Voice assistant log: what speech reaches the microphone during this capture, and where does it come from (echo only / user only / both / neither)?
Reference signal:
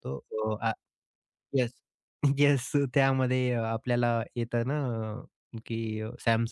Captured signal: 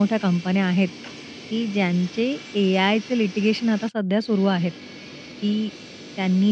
user only